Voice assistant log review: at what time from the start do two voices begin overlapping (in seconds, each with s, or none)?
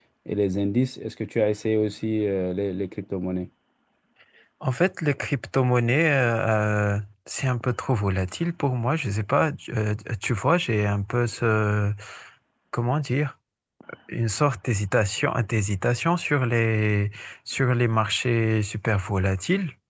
none